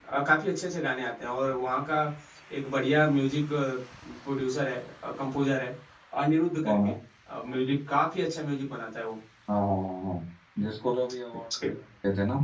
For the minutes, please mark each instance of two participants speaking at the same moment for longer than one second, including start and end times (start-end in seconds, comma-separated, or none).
none